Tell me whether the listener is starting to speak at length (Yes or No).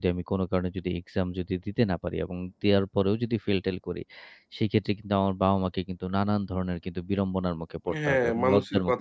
Yes